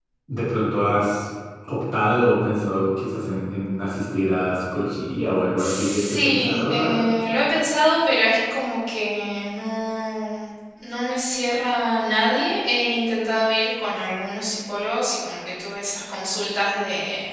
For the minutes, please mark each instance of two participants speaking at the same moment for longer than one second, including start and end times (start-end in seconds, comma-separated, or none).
5.5-7.0